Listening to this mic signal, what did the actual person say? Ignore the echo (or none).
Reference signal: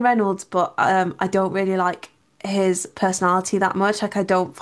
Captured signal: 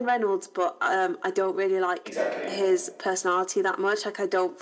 Exactly.